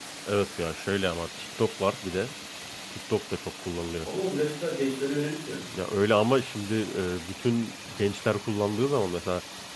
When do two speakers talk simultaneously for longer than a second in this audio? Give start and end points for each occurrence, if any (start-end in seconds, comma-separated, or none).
none